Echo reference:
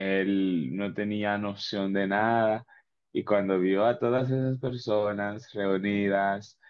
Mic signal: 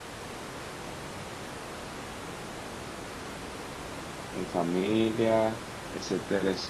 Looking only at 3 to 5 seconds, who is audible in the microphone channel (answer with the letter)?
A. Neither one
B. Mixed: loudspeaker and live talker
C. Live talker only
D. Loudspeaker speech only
C